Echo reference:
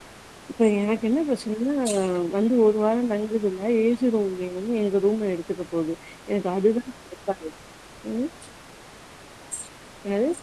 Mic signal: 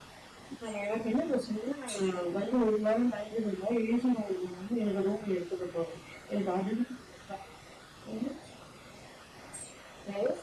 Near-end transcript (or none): none